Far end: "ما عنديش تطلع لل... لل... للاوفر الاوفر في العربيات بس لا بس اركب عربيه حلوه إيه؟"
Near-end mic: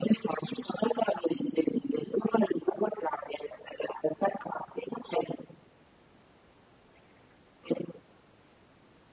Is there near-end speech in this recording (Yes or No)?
No